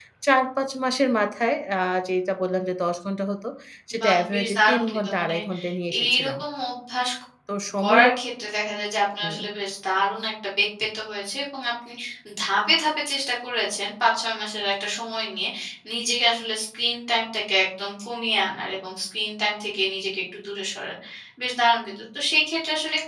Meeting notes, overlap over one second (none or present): present